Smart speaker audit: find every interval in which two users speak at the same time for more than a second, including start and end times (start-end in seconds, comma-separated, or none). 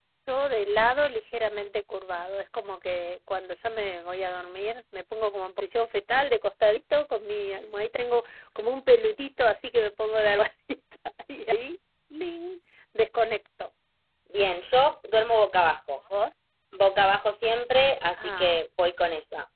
none